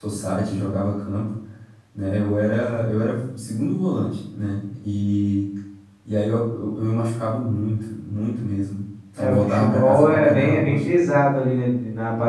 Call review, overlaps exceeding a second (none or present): present